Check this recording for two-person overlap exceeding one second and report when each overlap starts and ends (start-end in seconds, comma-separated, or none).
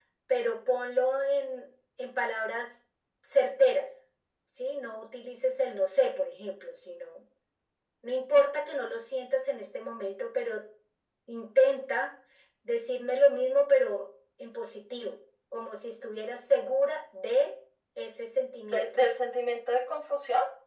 none